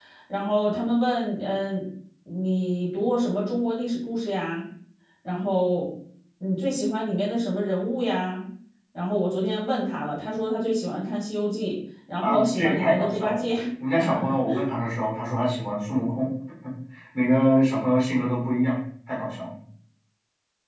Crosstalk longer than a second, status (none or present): present